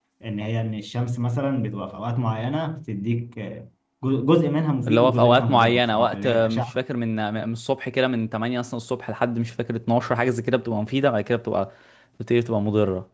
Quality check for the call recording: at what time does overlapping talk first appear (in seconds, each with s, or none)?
4.9 s